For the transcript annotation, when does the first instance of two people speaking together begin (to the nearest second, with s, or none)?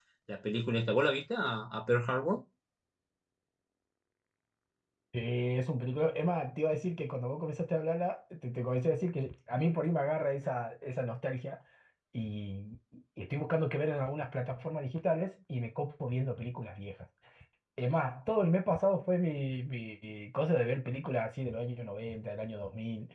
none